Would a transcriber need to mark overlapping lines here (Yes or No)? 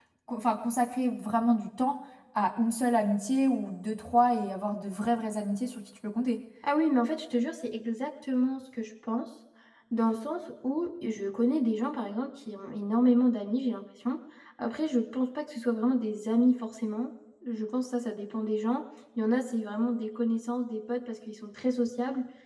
No